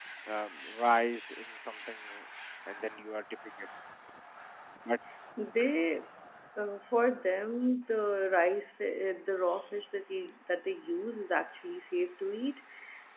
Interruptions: none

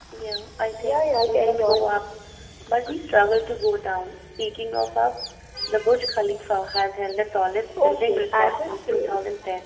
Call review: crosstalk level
present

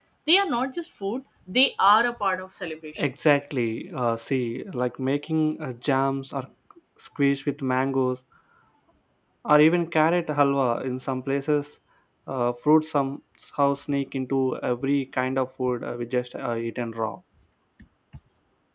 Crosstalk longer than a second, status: none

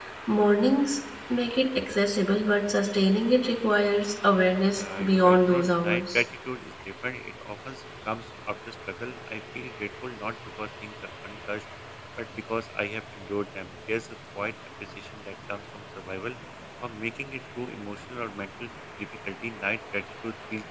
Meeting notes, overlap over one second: present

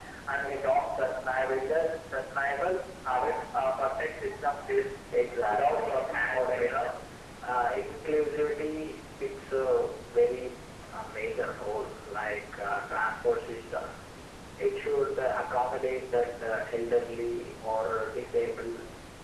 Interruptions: present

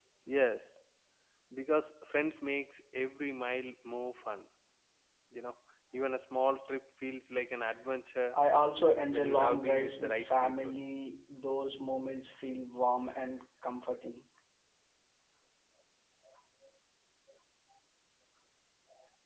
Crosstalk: present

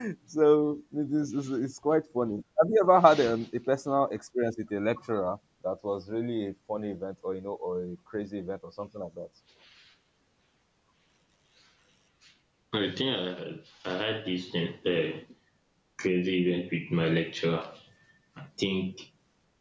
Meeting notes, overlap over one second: none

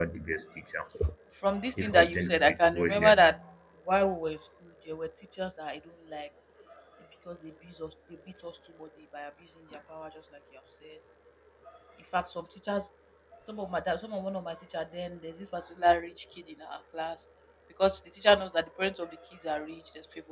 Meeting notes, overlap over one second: present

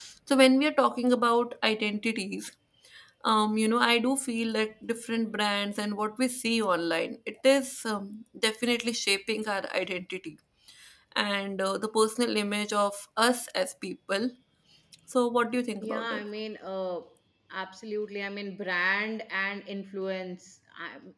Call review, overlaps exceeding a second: none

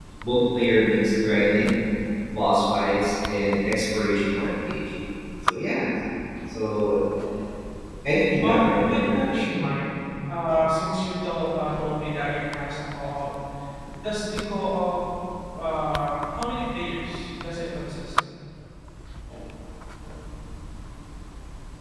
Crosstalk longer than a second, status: present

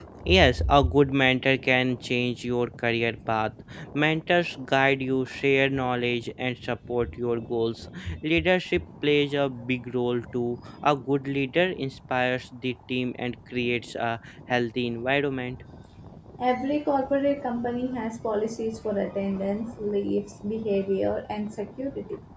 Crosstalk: none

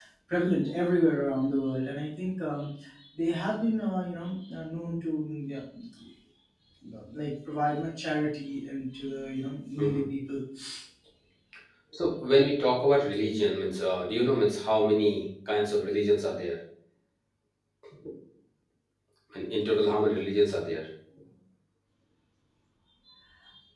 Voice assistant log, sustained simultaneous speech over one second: none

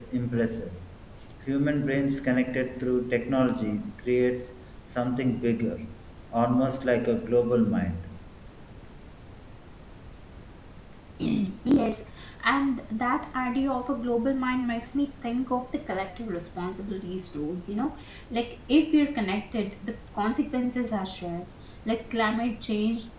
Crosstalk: none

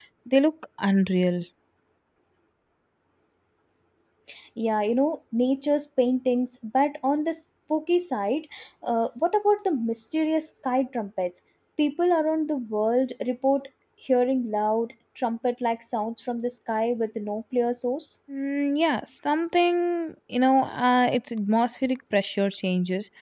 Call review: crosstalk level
none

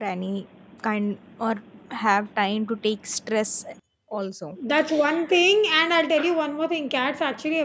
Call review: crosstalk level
none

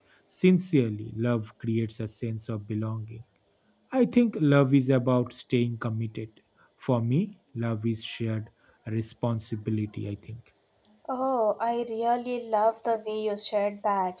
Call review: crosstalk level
none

